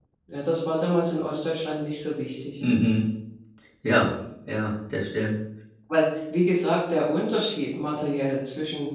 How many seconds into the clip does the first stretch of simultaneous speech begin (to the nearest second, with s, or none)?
none